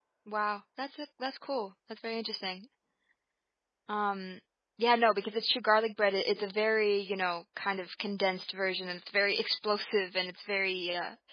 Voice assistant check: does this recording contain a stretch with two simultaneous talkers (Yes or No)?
No